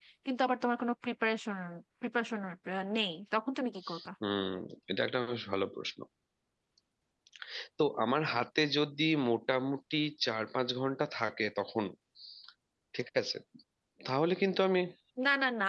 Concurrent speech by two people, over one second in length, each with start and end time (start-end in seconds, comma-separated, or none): none